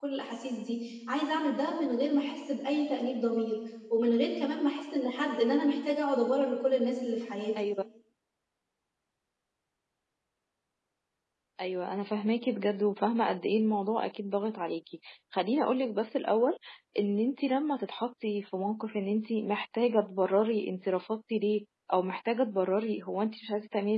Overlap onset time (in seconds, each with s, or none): none